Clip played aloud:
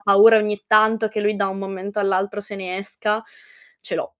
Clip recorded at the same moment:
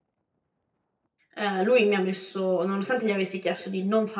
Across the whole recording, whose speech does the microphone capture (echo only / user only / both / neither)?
user only